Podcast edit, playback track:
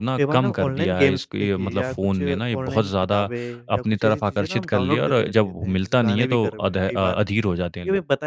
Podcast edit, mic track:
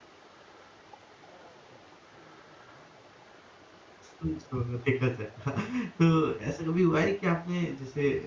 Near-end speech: present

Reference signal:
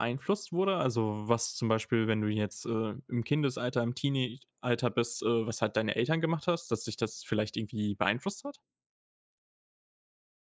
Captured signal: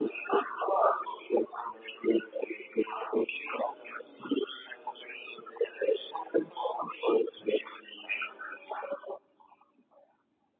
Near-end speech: none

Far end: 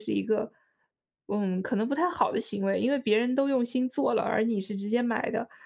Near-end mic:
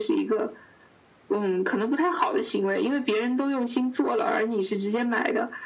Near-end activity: none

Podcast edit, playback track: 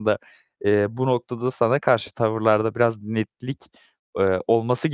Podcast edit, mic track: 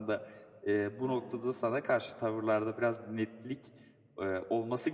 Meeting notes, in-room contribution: present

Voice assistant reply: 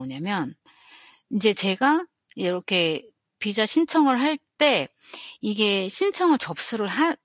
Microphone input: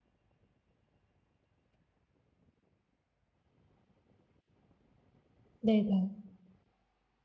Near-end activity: present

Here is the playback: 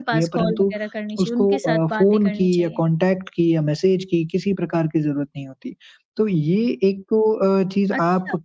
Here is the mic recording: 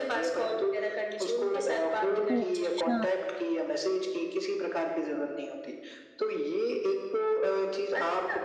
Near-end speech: present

